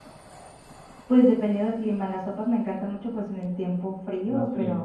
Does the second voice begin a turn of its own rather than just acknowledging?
No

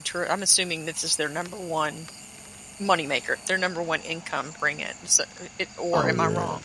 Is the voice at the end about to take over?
Yes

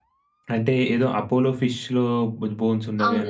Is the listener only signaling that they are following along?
No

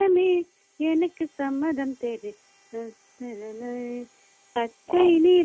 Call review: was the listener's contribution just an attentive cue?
Yes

